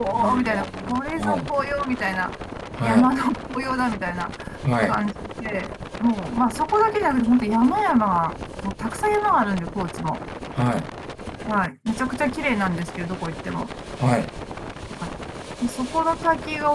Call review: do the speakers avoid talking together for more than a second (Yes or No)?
No